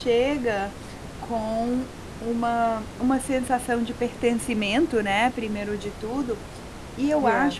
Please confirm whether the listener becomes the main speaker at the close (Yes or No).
No